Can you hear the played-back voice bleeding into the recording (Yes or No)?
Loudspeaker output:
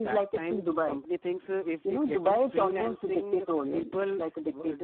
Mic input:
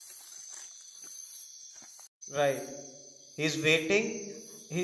No